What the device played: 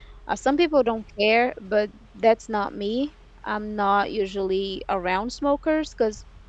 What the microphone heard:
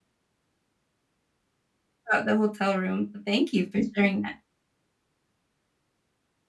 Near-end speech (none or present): present